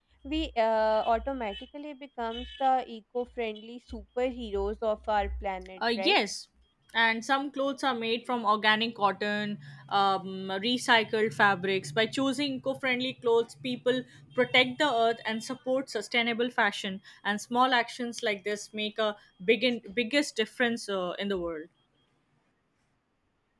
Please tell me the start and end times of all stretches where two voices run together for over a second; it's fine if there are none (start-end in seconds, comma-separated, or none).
none